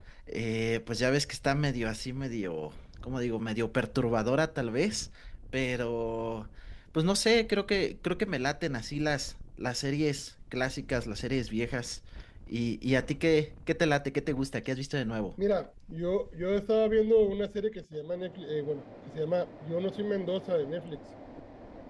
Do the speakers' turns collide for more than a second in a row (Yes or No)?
No